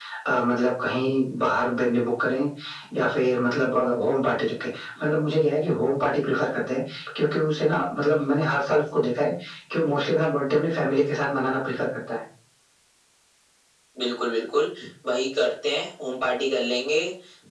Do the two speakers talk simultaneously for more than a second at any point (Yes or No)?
No